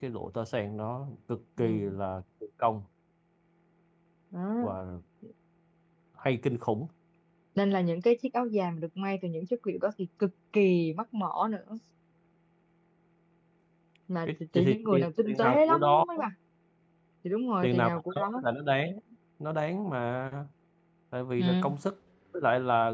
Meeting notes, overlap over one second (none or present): present